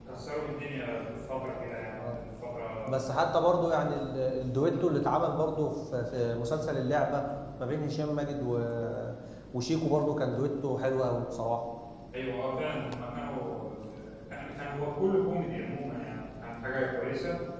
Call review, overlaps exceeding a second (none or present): none